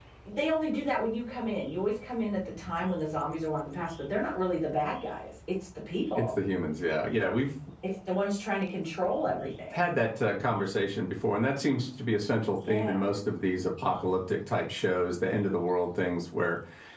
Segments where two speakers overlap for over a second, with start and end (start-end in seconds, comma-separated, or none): none